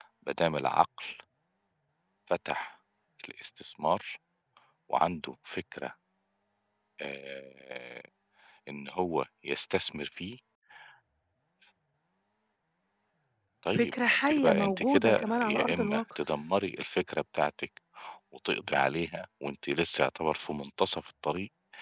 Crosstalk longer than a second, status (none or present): present